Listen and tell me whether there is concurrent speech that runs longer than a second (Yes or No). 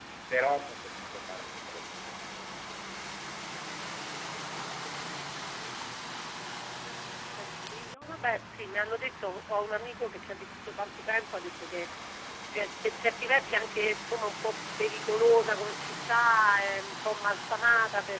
No